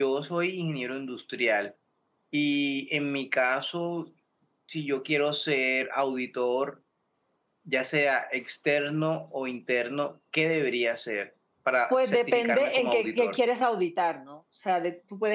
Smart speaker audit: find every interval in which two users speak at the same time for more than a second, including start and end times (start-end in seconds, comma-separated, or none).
11.9-13.4